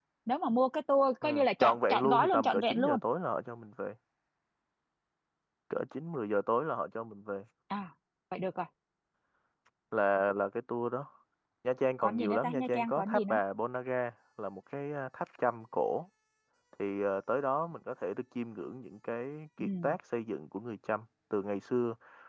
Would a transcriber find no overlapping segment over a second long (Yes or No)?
No